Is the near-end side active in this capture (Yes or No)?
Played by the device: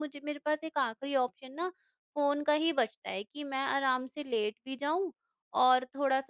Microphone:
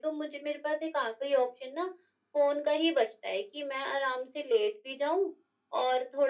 No